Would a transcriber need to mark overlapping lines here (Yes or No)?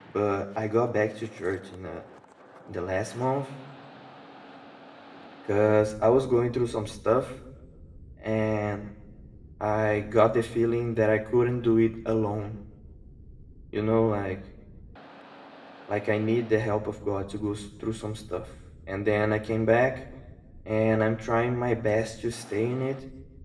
No